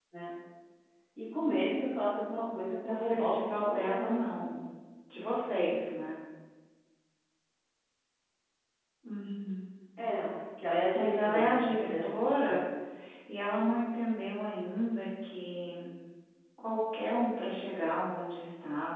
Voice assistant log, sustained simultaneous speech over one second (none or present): present